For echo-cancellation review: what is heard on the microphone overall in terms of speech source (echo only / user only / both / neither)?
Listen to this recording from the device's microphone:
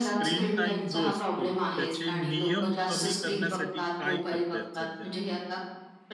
both